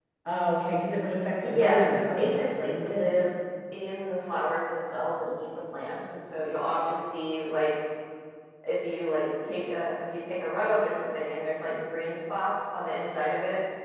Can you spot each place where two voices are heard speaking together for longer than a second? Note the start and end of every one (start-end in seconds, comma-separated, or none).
1.4-3.0